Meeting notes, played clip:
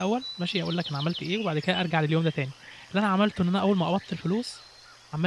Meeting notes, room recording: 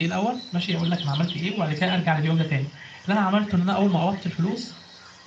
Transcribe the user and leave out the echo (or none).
none